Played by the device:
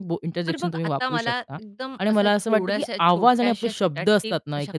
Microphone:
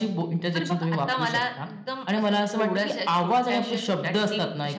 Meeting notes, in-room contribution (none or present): none